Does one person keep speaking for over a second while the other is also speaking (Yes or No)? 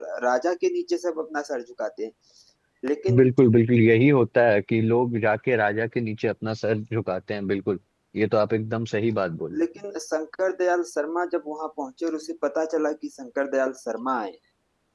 No